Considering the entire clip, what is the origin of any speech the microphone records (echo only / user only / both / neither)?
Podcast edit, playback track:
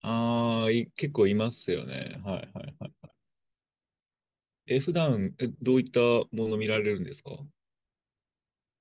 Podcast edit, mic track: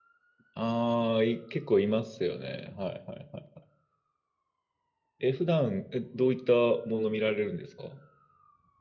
echo only